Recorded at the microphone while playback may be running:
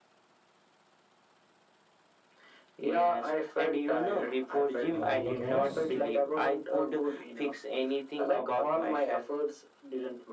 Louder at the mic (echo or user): echo